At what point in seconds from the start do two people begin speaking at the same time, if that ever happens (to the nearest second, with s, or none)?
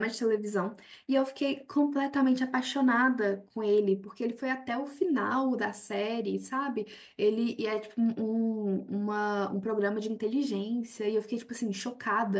none